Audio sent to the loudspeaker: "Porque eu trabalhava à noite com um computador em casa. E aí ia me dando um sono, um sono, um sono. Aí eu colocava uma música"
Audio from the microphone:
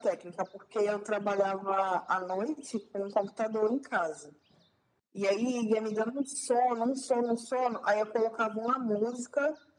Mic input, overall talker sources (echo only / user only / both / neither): echo only